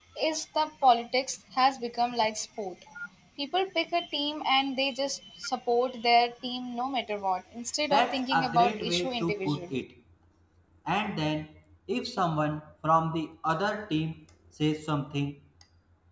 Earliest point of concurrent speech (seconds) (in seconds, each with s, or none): 7.9 s